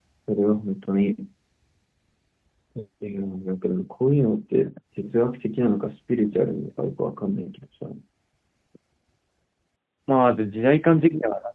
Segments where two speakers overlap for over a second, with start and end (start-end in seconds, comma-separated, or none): none